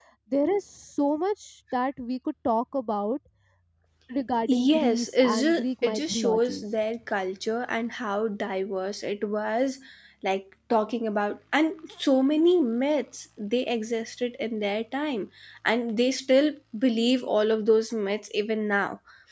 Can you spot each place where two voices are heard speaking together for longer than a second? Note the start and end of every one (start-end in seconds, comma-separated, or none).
4.5-6.6